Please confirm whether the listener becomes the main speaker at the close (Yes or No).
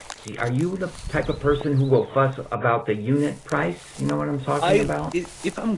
Yes